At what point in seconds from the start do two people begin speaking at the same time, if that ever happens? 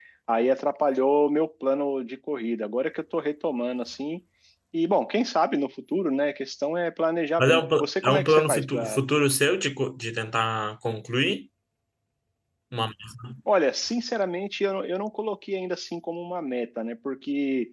7.4 s

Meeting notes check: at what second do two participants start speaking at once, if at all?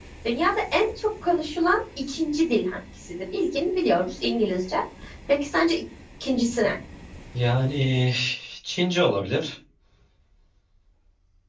none

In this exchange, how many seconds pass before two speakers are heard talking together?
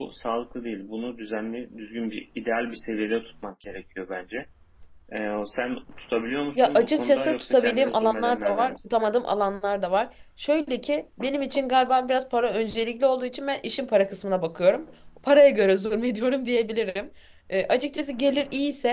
6.6 s

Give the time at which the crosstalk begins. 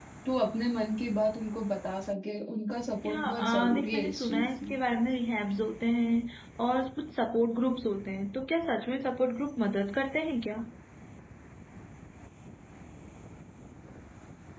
3.0 s

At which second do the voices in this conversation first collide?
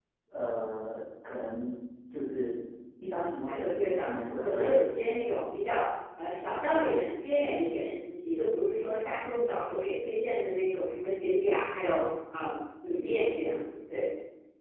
3.4 s

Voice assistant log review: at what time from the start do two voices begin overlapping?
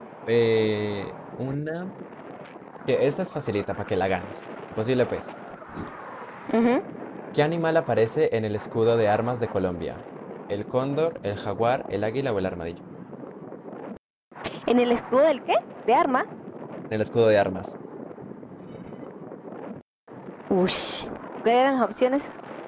none

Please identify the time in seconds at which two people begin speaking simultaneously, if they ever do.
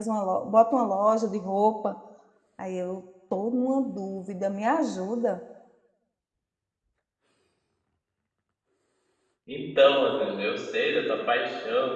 none

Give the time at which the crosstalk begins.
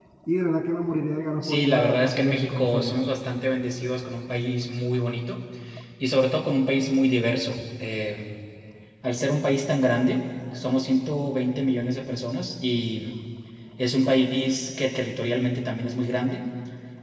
1.4 s

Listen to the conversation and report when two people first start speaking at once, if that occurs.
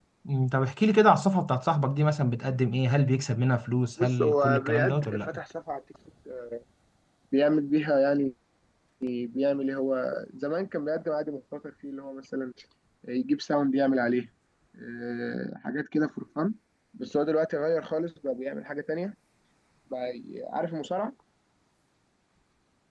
4.0 s

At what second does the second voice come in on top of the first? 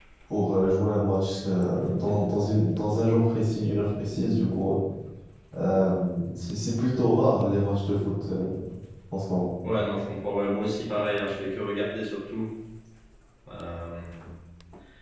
none

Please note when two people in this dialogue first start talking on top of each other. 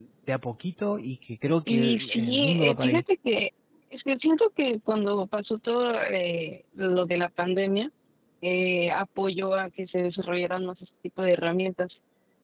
1.7 s

